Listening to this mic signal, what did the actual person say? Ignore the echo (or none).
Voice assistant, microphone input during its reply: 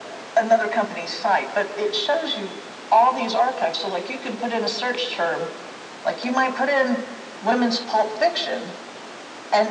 none